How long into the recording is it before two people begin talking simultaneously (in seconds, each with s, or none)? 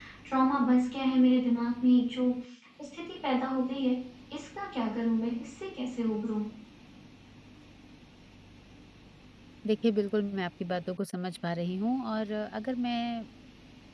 none